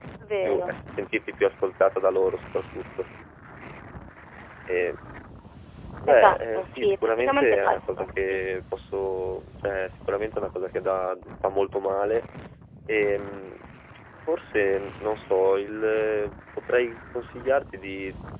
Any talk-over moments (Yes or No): Yes